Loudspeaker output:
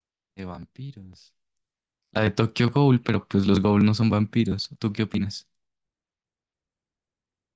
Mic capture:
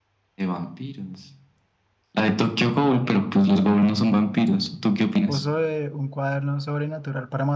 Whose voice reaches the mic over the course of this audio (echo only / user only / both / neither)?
both